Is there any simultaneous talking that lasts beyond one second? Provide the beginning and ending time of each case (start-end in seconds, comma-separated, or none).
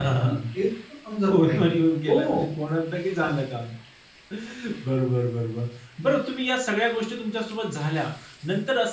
none